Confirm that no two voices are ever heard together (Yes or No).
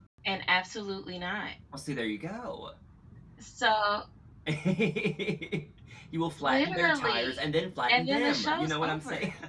No